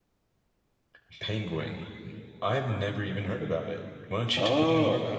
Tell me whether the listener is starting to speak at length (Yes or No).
Yes